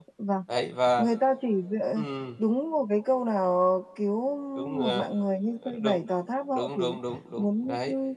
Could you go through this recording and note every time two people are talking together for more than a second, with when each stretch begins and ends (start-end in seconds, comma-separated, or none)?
none